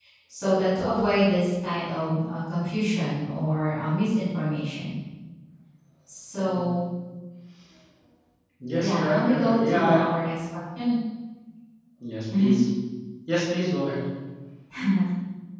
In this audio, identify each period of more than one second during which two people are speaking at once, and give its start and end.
8.8-10.0

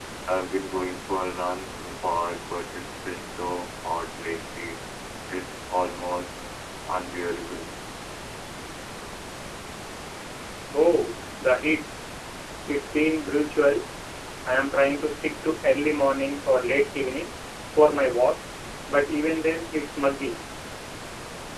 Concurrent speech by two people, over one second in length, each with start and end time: none

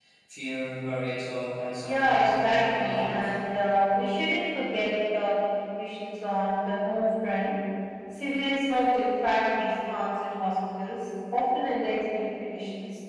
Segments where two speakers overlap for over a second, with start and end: 1.8-3.4

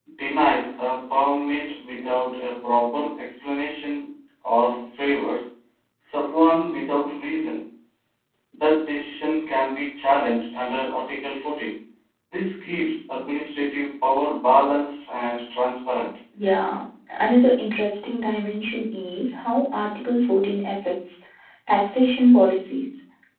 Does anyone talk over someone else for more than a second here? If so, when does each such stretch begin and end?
none

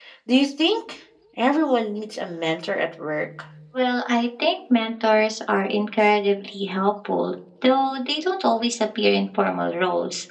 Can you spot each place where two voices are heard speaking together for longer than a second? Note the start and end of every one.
none

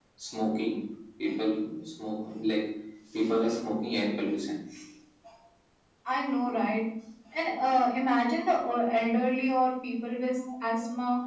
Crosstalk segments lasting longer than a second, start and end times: none

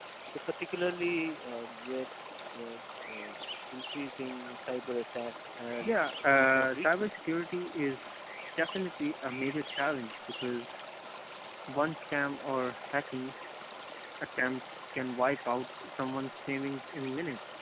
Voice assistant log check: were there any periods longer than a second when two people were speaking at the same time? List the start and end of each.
5.8-7.3

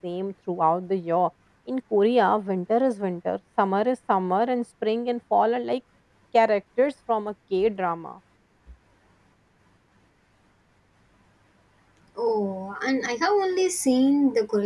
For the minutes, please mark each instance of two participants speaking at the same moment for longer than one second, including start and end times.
none

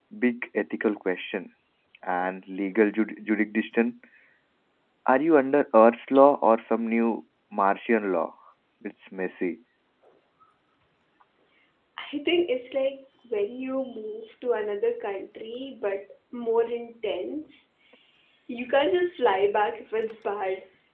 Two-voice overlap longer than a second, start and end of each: none

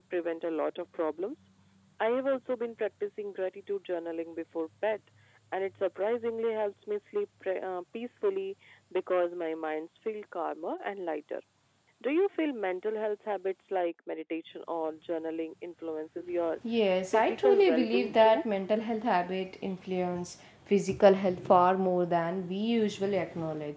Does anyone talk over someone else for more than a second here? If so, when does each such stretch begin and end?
17.1-18.4

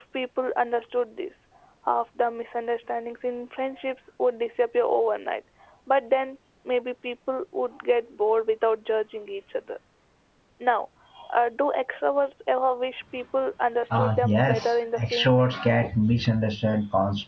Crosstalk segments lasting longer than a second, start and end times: 13.9-15.6

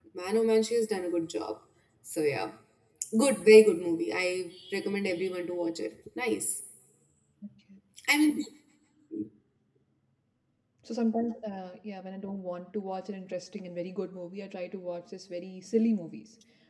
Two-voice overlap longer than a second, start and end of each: none

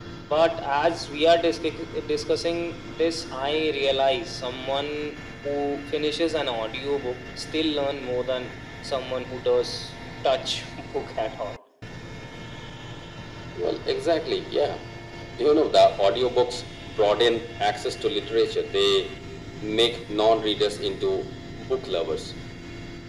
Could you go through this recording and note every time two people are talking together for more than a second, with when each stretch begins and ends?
none

